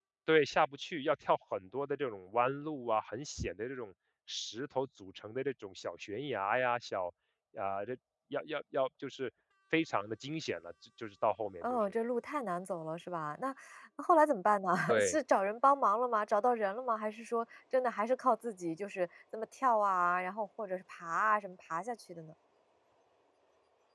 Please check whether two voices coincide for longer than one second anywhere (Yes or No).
No